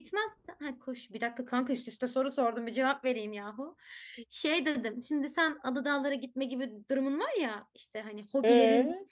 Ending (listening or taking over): listening